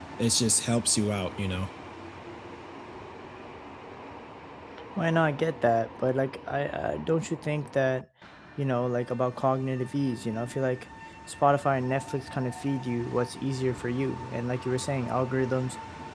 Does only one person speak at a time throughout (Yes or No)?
Yes